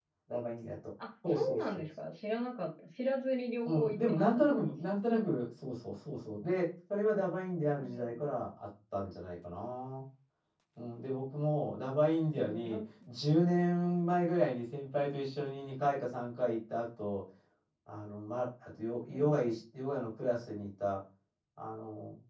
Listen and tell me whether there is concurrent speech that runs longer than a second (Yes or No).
Yes